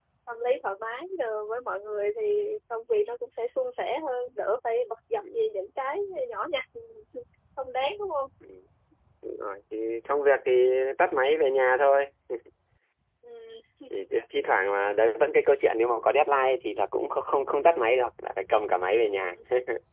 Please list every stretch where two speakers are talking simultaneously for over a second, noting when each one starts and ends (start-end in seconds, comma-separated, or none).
none